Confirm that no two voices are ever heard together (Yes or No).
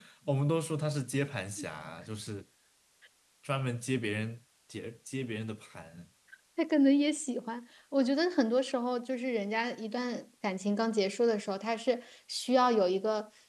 Yes